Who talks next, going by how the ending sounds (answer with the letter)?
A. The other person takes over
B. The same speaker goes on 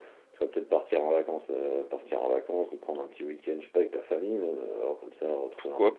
A